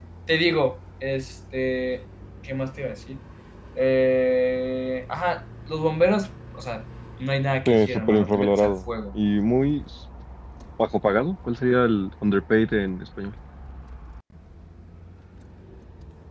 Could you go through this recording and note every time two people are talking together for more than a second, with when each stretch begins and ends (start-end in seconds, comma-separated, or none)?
7.7-8.9